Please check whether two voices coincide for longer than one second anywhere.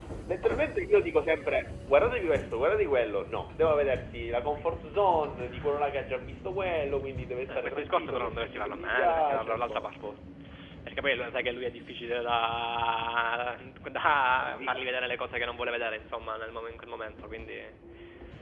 Yes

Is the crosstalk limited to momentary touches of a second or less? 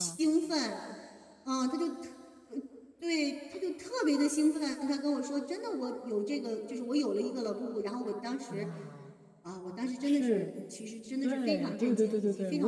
No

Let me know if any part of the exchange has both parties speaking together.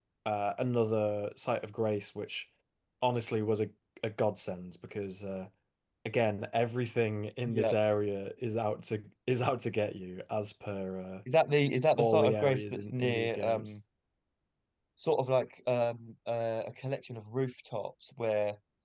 Yes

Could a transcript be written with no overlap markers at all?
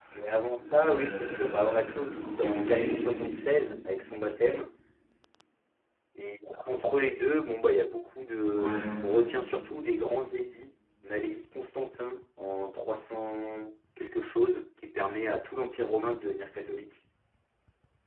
No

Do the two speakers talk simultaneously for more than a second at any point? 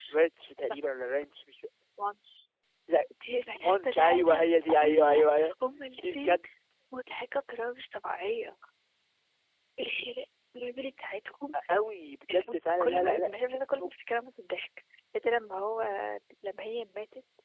Yes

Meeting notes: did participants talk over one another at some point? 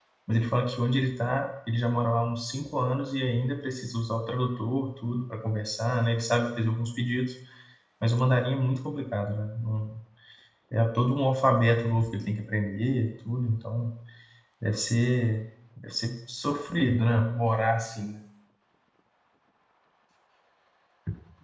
No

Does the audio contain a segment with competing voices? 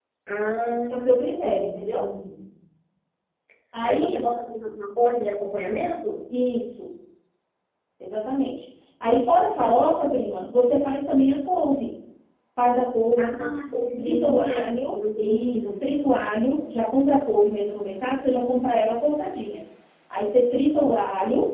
Yes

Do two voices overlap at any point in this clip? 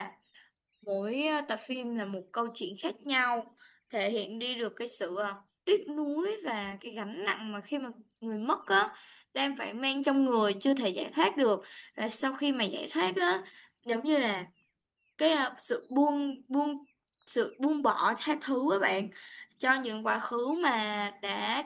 No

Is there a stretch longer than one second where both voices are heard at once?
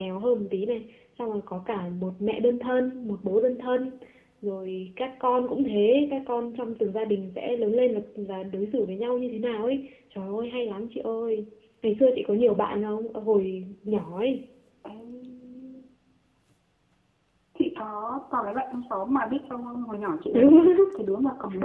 No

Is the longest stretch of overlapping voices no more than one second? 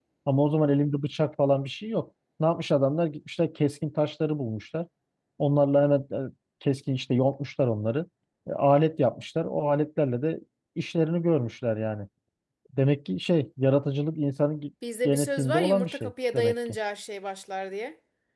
No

